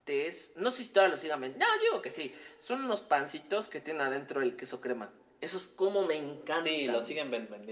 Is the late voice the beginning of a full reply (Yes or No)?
Yes